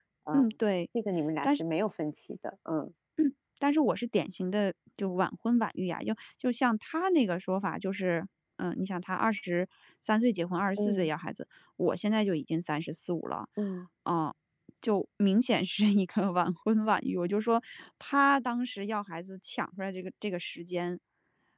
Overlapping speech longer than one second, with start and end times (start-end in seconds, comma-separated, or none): none